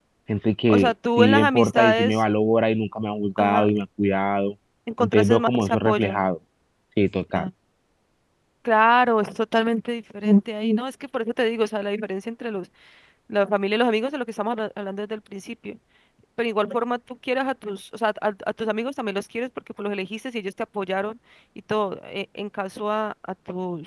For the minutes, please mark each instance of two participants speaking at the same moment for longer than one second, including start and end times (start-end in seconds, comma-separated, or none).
0.7-2.2, 5.0-6.3